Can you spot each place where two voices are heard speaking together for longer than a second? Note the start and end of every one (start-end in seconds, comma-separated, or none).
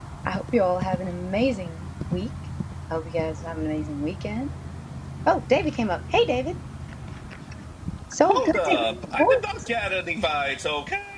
8.3-9.7